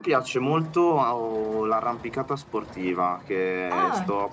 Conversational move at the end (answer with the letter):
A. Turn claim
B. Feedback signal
B